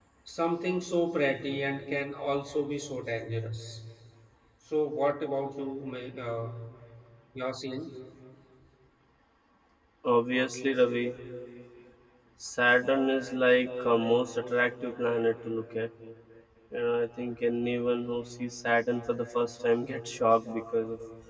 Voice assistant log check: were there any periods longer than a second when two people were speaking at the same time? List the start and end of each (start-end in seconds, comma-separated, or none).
none